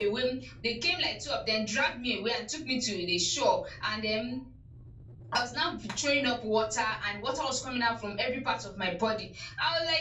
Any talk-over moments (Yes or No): No